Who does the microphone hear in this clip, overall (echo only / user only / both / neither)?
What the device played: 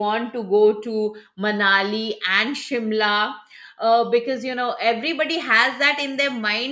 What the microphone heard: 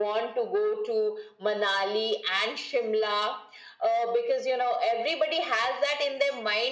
echo only